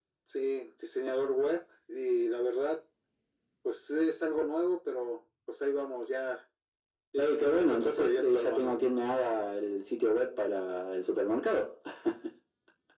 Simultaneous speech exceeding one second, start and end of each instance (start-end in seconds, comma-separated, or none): 7.2-8.7